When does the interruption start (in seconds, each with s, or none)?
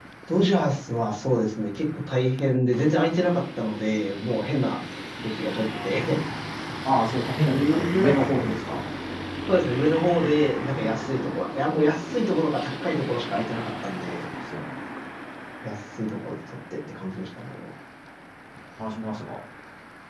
7.5 s